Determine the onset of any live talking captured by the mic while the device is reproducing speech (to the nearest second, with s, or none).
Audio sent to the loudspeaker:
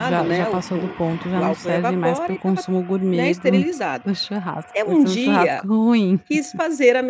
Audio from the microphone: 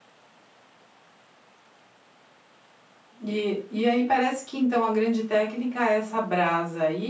3 s